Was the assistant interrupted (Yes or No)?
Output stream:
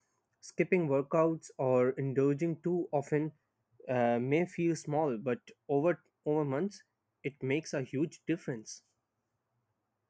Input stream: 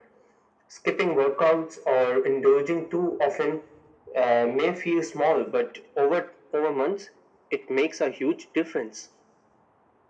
No